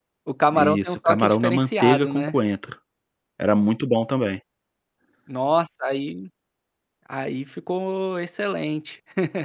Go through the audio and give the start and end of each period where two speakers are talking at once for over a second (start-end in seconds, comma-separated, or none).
0.5-2.3